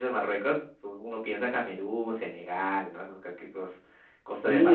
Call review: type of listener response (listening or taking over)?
taking over